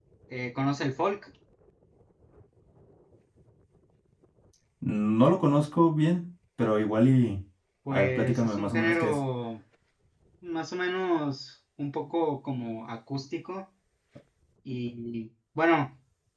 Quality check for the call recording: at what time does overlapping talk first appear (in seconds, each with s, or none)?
7.9 s